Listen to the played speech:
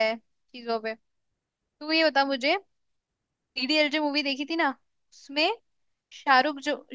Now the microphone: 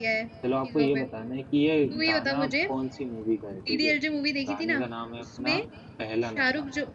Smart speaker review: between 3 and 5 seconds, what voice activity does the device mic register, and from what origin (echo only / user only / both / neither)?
both